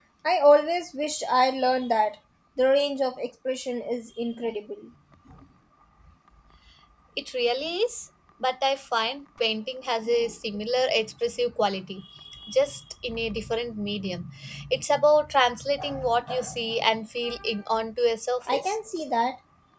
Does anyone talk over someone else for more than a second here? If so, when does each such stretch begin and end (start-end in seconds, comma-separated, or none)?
none